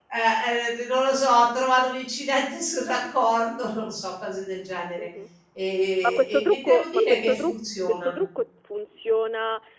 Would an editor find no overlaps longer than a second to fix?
No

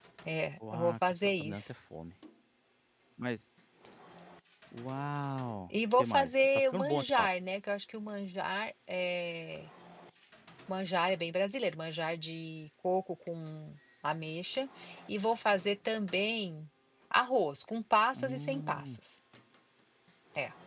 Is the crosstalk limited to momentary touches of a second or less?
No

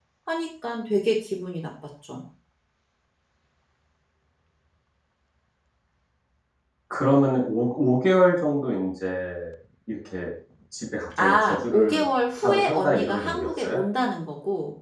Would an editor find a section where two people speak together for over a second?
Yes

